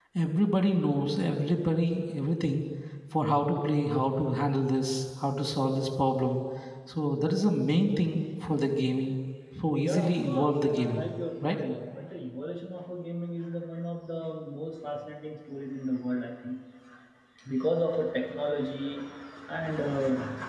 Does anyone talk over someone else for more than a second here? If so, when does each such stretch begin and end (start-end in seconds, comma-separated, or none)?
9.8-11.0